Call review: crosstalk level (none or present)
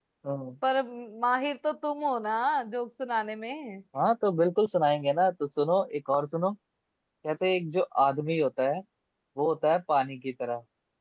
none